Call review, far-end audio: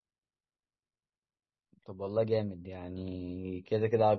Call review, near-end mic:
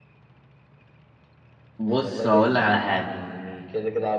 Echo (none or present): present